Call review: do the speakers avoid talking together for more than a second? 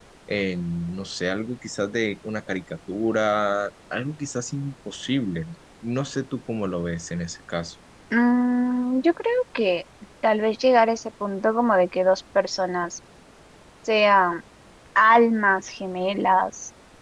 Yes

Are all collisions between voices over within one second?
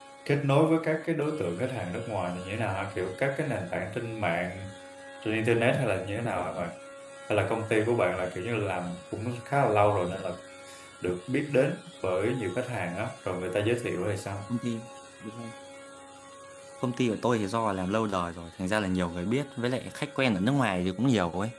Yes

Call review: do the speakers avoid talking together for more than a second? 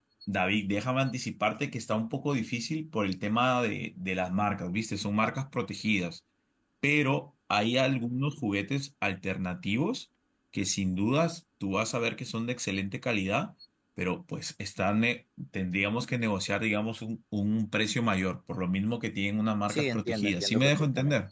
No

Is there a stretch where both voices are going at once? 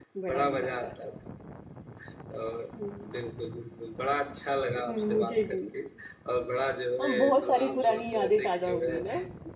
Yes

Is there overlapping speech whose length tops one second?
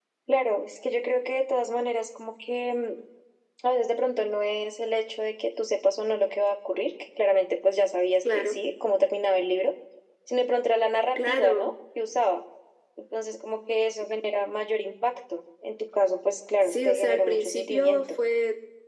Yes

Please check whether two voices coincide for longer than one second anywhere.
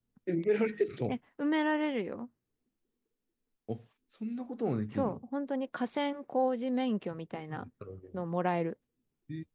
No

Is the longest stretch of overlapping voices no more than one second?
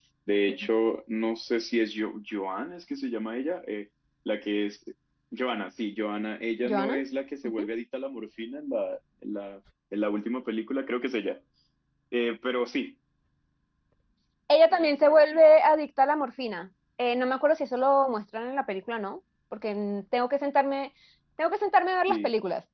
Yes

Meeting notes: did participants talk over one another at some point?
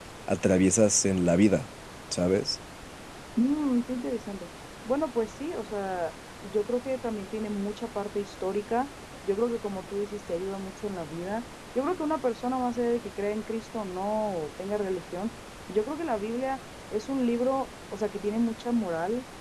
No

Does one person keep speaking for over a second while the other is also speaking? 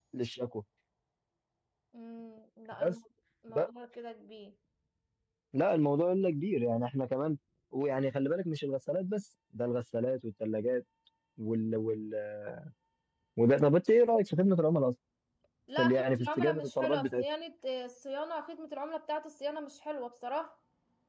Yes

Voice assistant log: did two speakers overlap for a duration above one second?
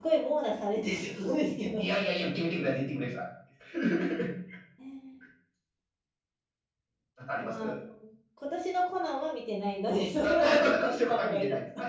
Yes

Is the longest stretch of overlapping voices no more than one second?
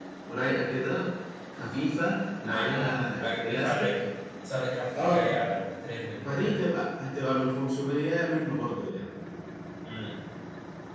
No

